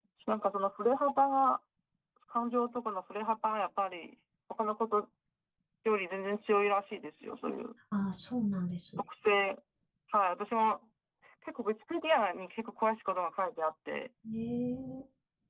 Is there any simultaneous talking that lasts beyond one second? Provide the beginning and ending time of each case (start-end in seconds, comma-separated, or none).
none